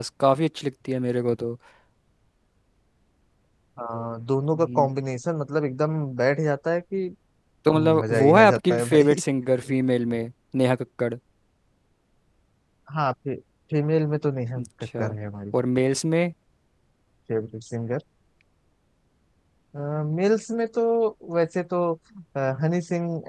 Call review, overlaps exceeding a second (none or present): present